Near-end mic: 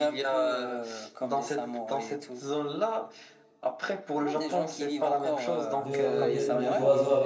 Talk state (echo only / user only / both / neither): both